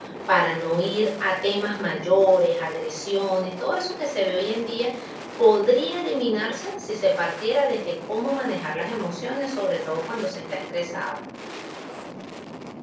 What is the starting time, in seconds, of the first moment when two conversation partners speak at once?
none

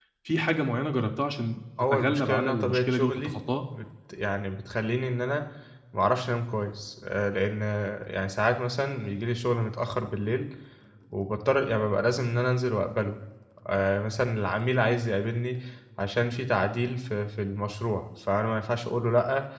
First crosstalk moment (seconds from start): 1.8 s

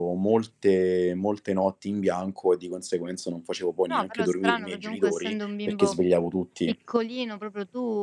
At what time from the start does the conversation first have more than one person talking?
3.9 s

